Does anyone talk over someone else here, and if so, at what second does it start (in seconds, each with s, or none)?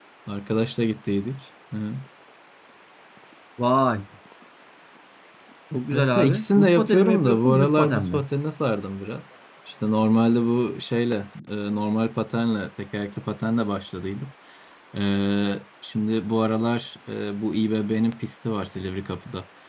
5.9 s